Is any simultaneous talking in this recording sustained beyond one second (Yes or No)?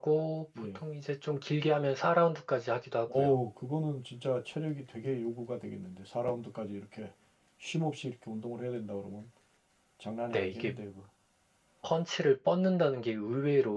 No